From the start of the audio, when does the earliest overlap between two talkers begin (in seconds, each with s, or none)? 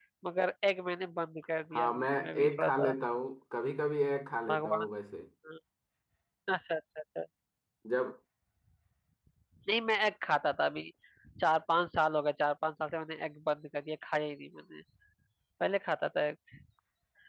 1.7 s